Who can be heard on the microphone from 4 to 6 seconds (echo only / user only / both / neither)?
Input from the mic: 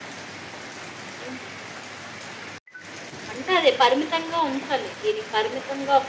echo only